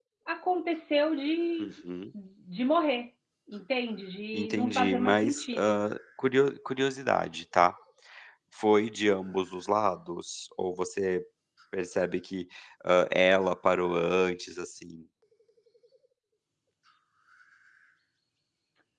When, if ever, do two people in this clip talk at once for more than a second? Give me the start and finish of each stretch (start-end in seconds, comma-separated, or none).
4.3-5.8